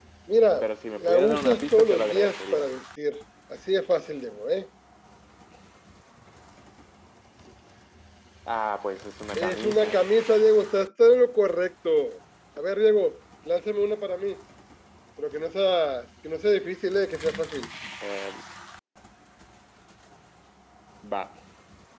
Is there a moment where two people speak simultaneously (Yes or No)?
Yes